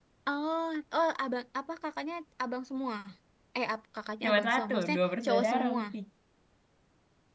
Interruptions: present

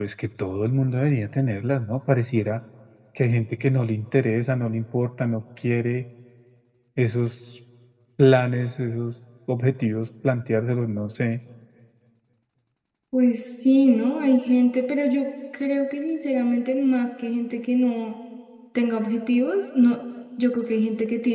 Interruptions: none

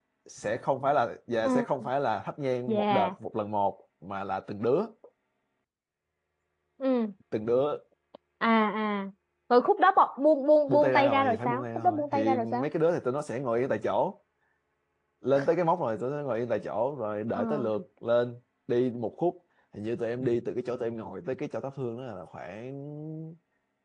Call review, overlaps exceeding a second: present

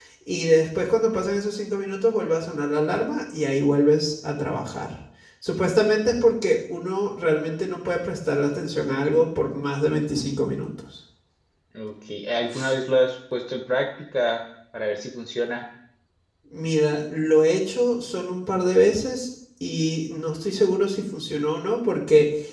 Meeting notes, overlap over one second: none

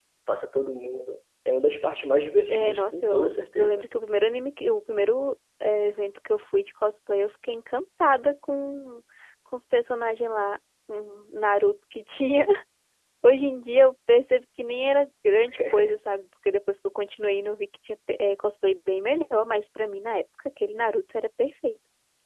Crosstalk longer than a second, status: present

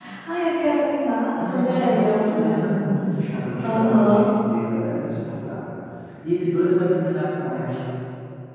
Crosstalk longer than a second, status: present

